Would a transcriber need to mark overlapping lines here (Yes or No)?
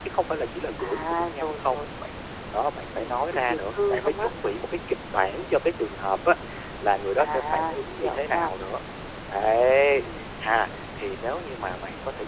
Yes